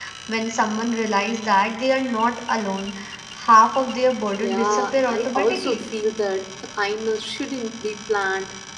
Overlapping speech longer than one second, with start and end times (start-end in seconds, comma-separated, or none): 4.3-5.8